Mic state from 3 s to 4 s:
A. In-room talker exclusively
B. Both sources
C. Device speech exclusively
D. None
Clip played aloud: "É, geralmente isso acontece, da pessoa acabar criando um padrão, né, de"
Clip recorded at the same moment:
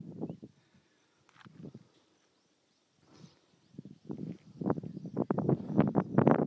D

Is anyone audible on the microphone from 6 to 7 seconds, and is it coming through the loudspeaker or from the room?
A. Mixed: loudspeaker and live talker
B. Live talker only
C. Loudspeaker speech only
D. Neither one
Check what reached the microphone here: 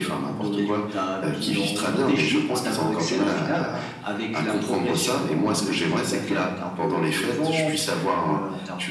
C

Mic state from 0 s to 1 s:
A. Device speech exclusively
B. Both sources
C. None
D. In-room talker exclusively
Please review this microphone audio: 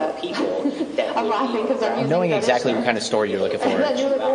A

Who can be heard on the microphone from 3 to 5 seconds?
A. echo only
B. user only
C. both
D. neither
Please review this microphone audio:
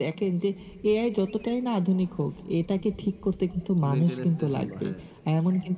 C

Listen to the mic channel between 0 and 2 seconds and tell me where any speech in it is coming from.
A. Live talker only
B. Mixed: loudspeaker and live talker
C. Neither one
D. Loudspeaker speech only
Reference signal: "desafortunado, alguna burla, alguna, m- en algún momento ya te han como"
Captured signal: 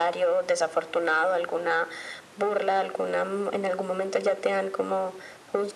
D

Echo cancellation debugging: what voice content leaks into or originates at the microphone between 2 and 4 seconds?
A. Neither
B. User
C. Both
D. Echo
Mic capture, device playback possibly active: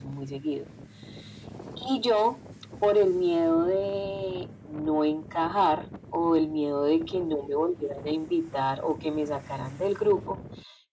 D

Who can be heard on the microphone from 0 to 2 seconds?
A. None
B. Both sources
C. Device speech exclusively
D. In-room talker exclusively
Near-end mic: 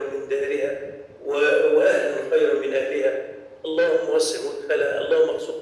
C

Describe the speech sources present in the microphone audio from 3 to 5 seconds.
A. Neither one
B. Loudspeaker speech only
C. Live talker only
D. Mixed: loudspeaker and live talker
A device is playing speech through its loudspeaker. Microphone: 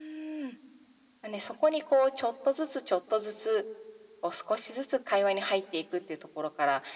B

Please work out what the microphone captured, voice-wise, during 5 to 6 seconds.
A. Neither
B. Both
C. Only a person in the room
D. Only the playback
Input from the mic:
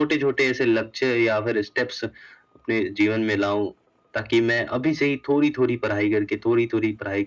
D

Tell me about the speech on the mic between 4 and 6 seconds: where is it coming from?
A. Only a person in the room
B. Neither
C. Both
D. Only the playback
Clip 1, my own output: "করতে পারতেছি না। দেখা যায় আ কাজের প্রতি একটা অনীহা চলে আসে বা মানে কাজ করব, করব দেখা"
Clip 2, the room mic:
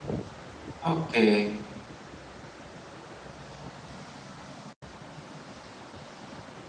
B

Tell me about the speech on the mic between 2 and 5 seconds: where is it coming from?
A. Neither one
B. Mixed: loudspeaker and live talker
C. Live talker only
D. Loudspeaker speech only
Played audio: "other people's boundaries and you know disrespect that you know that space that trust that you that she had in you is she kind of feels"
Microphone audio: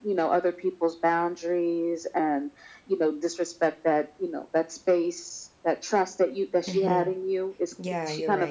D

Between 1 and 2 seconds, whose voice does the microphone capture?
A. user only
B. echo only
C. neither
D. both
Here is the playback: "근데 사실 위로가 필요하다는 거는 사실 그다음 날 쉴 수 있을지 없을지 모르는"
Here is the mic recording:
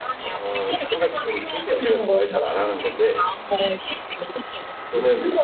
D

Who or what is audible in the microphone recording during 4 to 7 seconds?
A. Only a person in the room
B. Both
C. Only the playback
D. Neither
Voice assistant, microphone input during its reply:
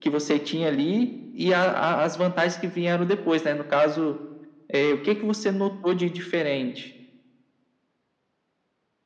C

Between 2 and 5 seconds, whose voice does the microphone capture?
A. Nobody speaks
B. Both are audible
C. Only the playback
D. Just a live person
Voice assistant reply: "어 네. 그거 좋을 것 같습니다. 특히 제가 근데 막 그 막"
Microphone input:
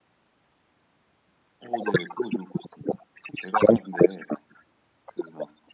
C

